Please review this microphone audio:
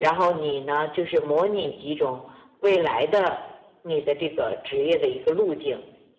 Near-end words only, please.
none

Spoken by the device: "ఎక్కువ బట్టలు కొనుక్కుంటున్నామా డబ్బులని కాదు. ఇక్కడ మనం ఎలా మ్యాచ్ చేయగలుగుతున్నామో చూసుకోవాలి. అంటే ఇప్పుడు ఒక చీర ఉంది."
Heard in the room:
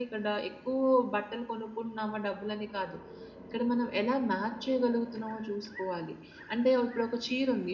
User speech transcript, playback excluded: none

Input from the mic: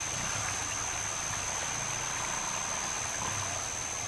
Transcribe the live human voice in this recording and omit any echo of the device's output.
none

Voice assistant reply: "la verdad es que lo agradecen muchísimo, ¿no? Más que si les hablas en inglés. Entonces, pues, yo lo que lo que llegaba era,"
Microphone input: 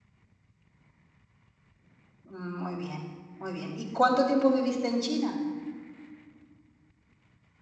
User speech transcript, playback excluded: Mm, Muy bien, muy bien. ¿Y cuánto tiempo viviste en China?

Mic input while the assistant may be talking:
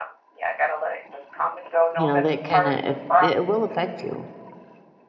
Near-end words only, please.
you know, that kind of it will affect you

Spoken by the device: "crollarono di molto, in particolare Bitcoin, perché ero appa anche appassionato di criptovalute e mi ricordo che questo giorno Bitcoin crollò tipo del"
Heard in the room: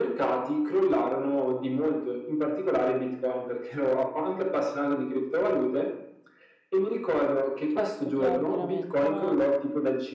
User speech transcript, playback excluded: Certo, chiaro, chiaramente, ma,

